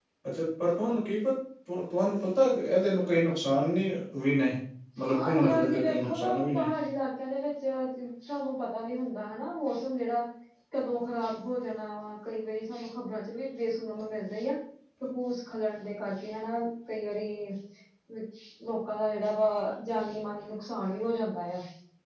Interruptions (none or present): present